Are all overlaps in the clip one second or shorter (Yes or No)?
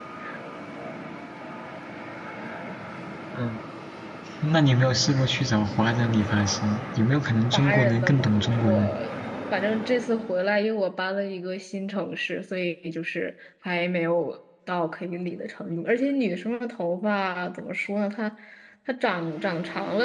No